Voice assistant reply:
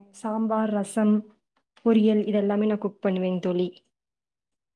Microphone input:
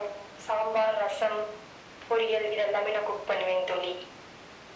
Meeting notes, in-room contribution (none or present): none